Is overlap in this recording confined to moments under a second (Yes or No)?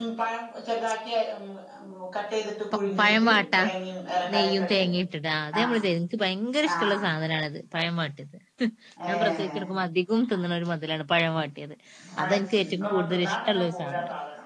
No